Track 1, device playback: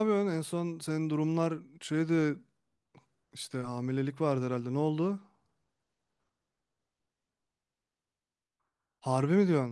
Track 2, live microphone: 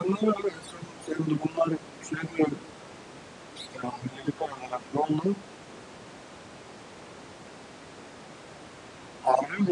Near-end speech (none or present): none